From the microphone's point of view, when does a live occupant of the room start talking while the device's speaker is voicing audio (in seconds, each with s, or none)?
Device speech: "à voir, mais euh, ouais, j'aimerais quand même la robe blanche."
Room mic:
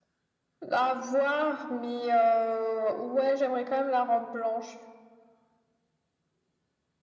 none